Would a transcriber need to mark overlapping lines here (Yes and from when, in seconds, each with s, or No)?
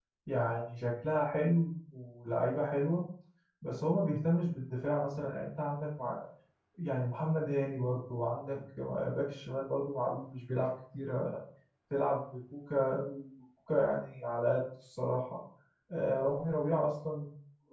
No